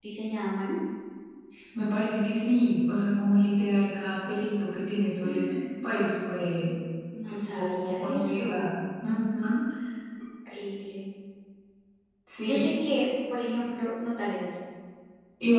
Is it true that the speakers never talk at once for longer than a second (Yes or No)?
No